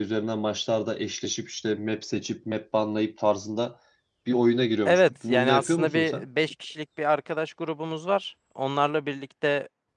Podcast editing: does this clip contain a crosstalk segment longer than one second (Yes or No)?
Yes